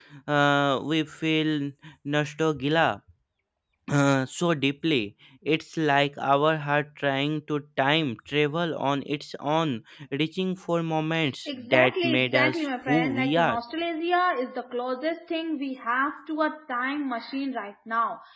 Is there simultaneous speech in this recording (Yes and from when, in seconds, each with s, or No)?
Yes, from 11.5 s